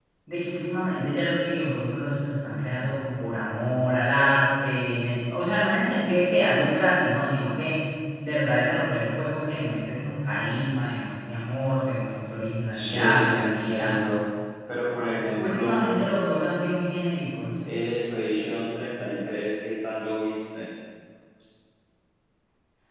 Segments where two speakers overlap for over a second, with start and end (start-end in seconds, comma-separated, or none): 12.7-13.9